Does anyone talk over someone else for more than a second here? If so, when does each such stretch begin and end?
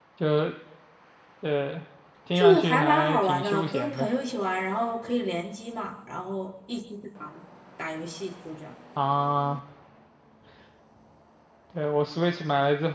2.4-4.1

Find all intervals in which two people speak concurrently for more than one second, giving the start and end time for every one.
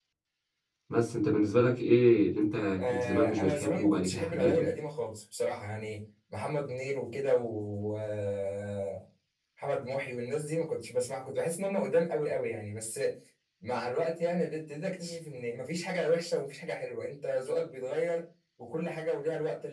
2.8-4.7

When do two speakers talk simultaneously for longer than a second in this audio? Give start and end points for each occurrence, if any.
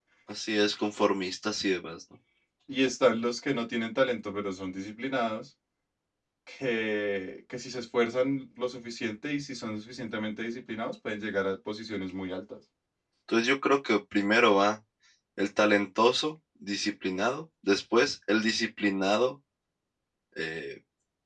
none

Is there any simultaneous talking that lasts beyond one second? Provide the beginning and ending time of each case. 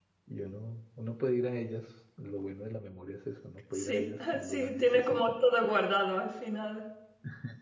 3.7-5.3

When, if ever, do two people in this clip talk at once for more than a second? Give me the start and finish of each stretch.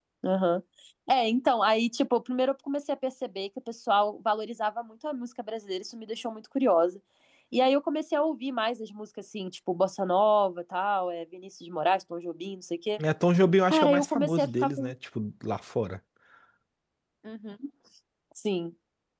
13.7-14.9

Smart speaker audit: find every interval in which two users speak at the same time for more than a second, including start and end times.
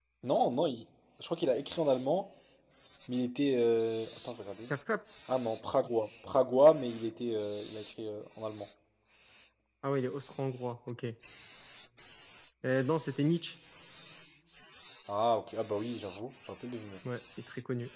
none

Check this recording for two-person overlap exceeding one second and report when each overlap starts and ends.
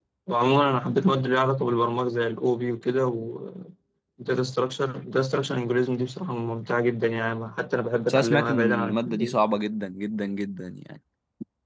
8.1-9.3

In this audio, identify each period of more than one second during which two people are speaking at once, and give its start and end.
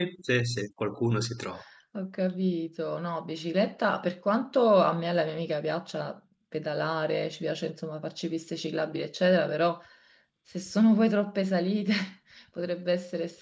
none

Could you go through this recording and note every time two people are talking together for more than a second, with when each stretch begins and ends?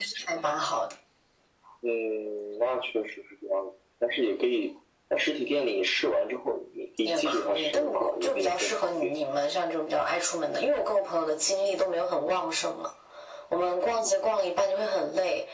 7.0-9.1

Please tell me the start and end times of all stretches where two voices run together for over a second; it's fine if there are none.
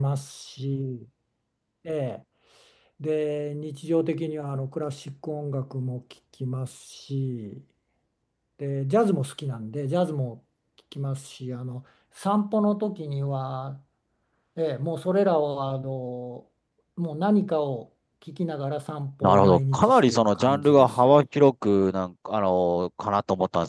19.2-21.1

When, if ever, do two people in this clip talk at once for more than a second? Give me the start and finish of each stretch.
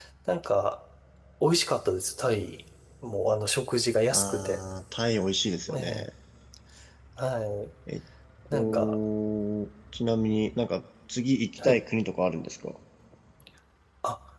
none

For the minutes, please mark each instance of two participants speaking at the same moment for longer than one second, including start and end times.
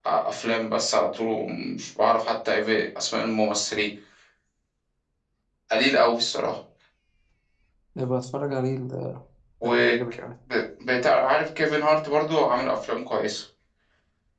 none

